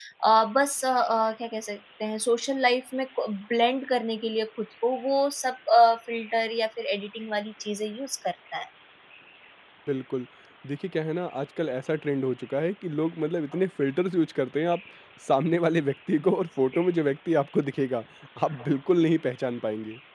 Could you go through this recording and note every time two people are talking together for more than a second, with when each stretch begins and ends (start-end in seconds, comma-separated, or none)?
none